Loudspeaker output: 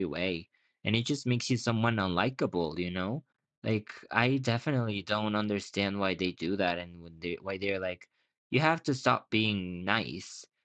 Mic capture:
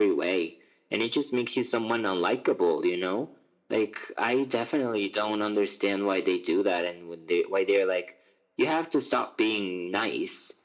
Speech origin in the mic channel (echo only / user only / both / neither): echo only